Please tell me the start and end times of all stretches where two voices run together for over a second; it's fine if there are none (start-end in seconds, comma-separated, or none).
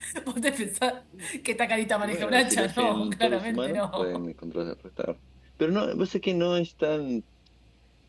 2.0-4.2